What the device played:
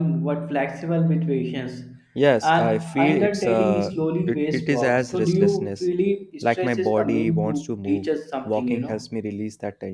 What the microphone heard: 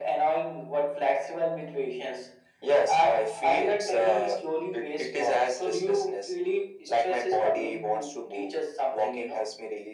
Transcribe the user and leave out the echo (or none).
none